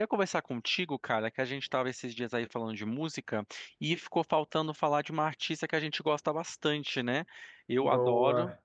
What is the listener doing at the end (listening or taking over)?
listening